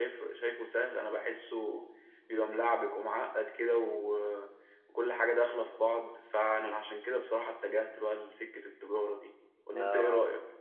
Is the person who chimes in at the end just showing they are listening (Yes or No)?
No